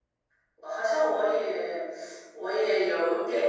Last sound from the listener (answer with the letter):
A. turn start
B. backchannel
A